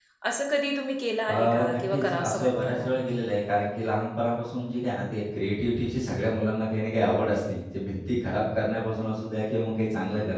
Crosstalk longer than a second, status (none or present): present